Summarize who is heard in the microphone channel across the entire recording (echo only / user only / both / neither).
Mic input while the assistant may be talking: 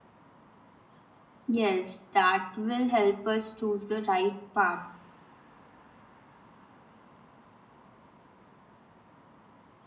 user only